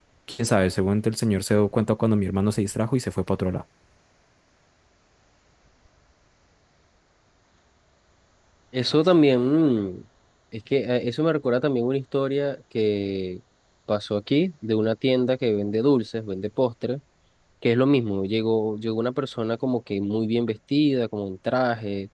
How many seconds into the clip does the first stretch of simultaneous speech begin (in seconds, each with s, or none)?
none